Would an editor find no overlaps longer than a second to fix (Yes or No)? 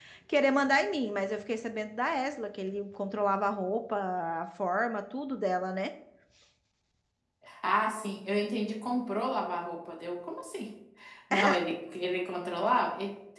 Yes